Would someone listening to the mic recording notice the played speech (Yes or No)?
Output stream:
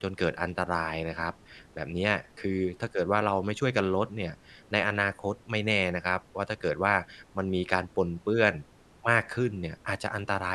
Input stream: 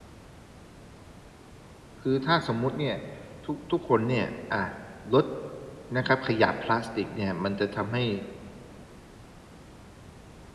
No